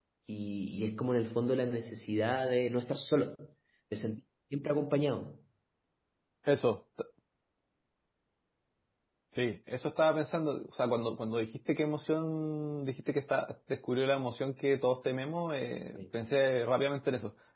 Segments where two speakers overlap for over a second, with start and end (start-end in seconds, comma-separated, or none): none